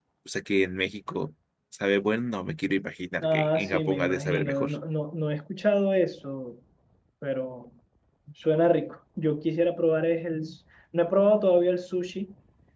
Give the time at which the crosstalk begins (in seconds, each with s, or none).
3.2 s